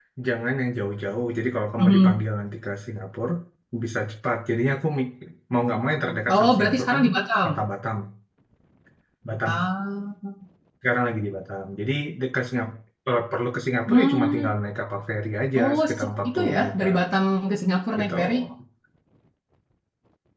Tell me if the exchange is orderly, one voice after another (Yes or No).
No